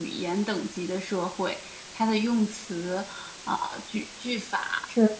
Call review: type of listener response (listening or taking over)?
listening